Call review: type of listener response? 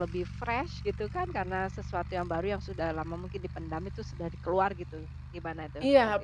taking over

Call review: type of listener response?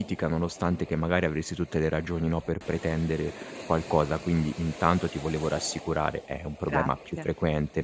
listening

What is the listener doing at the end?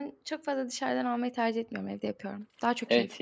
taking over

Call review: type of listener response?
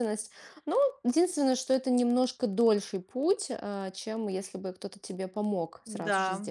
taking over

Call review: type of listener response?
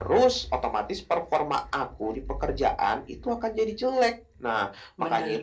listening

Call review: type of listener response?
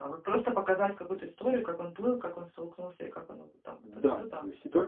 taking over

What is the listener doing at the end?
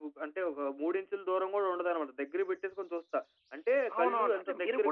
taking over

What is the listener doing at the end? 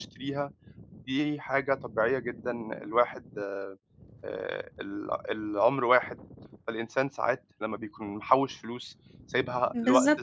taking over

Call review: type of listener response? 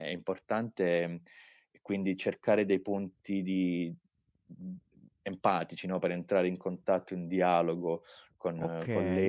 taking over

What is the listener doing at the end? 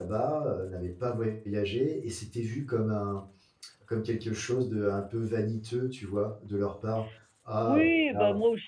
taking over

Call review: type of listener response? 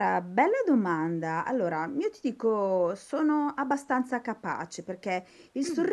listening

